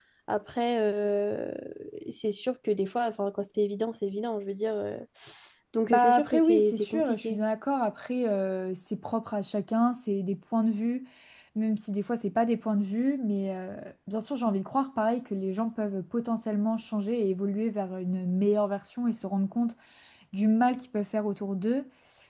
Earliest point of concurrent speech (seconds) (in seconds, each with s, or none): 5.9 s